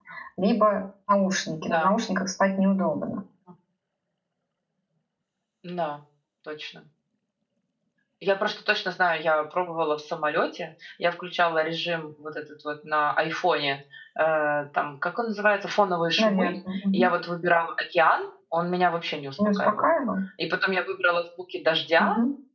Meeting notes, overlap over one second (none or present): none